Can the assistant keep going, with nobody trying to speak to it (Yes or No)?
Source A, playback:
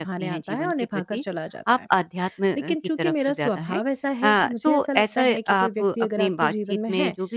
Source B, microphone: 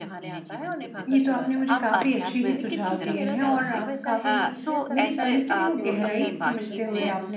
No